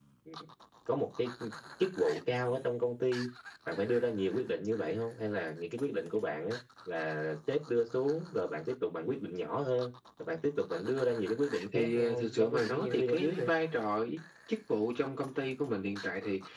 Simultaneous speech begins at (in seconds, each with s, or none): 11.7 s